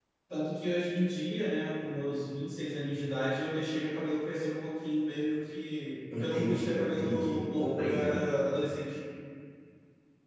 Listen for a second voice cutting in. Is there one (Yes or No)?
Yes